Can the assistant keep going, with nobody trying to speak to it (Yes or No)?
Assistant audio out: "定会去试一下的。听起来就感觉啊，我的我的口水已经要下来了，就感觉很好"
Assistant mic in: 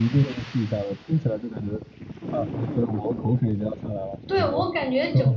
No